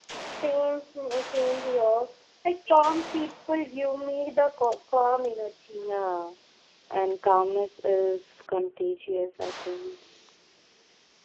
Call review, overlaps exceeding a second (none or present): none